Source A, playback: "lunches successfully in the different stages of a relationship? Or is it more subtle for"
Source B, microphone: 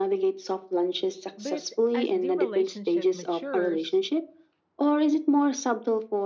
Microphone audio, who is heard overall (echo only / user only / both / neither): both